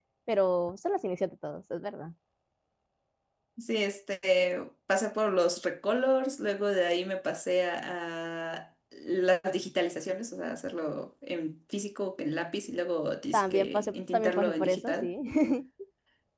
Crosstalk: present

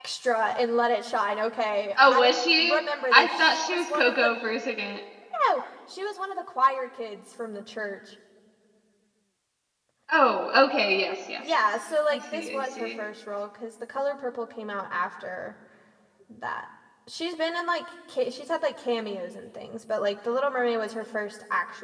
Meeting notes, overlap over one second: present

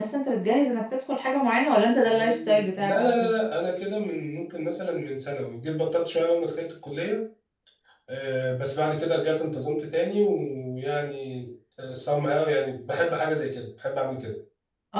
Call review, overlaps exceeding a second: present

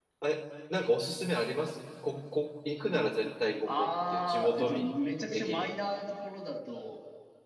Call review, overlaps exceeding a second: present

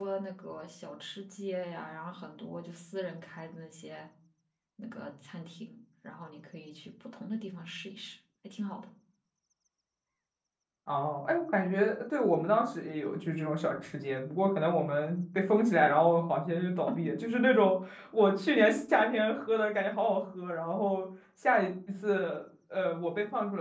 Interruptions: none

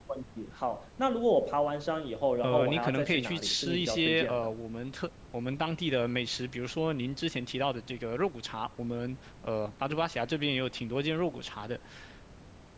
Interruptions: present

